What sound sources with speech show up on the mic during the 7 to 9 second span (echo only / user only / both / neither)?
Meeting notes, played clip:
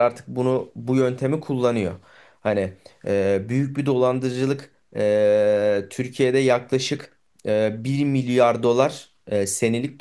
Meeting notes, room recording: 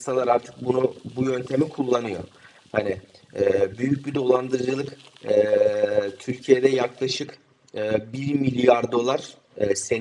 echo only